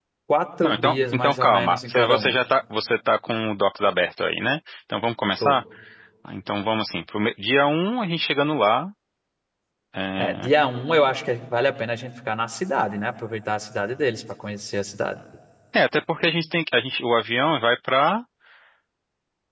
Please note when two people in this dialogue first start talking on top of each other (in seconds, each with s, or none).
0.6 s